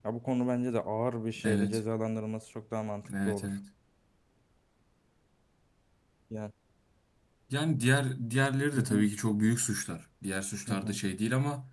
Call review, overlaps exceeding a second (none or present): none